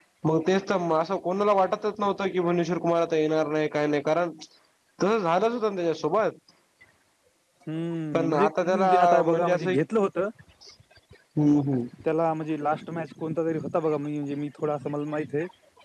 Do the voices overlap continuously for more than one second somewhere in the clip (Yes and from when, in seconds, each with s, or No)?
Yes, from 8.1 s